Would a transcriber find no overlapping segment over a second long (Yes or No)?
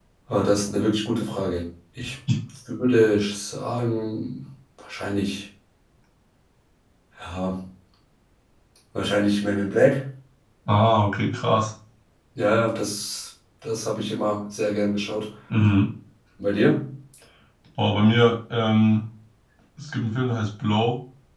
Yes